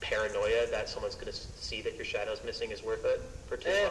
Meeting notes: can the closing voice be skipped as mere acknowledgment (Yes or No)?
No